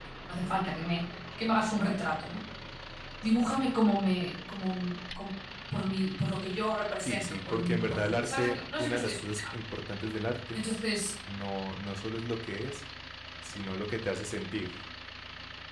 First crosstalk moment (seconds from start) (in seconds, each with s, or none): 7.0 s